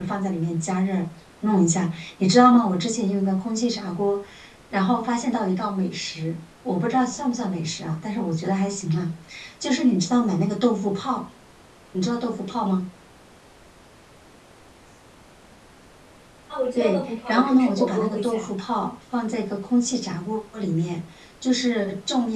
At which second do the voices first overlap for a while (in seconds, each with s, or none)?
16.8 s